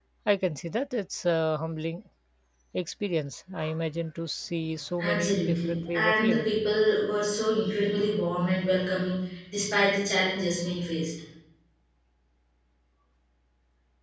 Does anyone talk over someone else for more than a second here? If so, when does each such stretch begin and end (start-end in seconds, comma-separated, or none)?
5.0-6.5